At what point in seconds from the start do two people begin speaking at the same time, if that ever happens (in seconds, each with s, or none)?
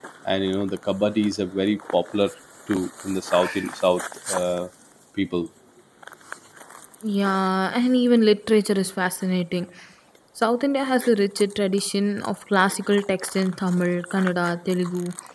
none